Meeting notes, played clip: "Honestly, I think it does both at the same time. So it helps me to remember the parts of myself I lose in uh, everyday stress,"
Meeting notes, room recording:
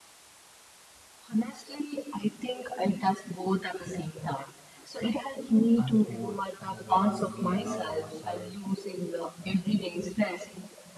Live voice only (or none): unfolds you know when we allow ourselves